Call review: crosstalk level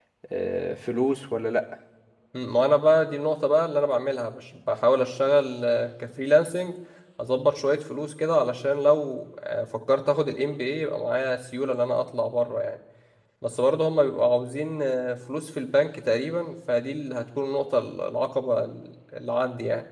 none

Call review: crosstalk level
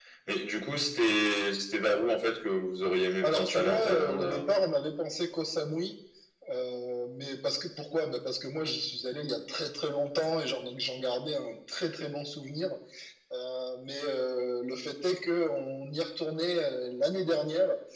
present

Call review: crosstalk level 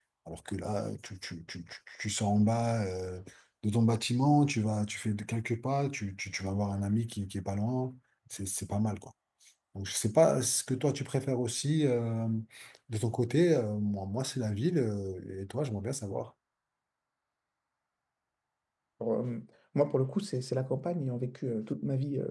none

